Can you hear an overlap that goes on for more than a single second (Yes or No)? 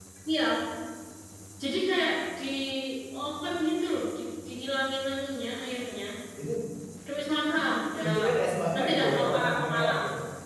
Yes